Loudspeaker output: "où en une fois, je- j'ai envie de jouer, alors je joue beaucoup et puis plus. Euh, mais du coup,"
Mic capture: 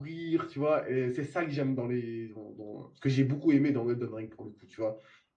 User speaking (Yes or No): Yes